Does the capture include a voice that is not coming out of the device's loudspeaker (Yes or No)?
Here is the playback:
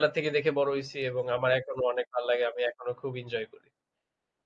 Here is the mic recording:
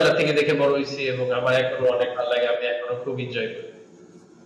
No